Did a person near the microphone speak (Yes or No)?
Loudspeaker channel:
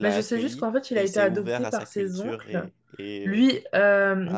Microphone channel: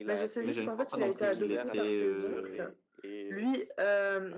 Yes